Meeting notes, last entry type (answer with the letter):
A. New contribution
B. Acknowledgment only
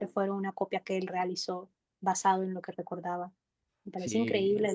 A